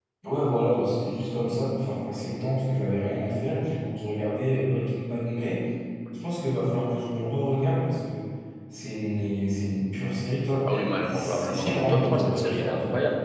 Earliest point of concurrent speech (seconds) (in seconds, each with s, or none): 10.7 s